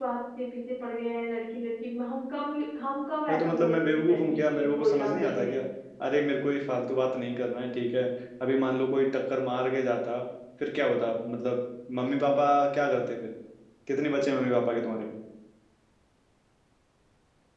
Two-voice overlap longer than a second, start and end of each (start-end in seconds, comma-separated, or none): 3.3-5.6